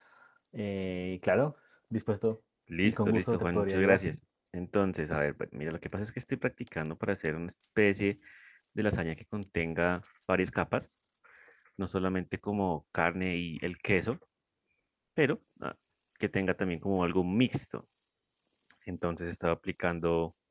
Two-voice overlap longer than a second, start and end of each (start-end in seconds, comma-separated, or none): 2.8-4.0